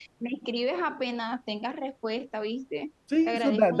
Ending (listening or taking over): taking over